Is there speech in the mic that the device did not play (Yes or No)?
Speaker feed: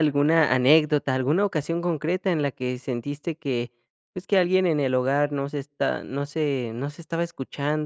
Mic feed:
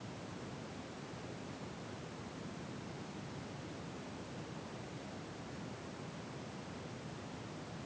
No